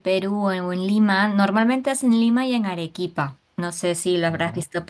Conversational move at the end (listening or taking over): listening